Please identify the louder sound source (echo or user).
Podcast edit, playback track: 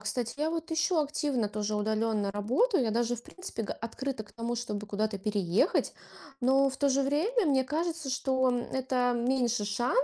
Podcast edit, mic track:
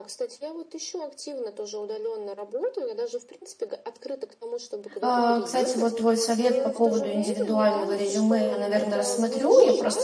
user